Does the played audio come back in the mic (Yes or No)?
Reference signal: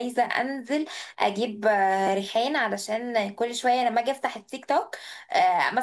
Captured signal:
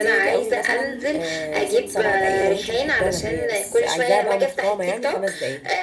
Yes